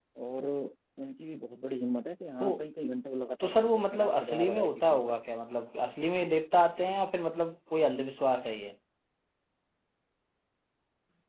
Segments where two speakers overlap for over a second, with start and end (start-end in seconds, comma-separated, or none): 3.4-5.0